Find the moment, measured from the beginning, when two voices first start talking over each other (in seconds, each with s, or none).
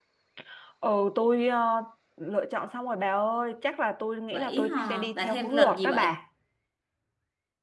4.3 s